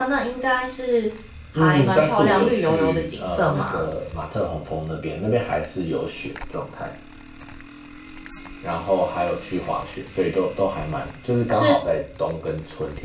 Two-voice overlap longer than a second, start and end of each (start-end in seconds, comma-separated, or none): 1.5-3.9